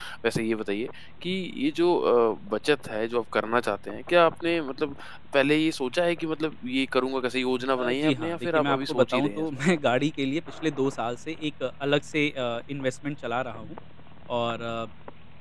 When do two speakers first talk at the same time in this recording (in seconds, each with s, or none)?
7.8 s